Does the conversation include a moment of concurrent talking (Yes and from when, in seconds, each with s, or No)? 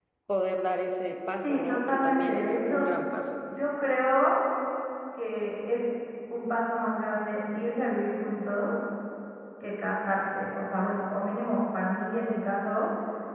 Yes, from 1.4 s